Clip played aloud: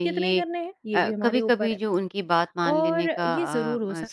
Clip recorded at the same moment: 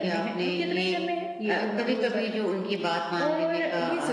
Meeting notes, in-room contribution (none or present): none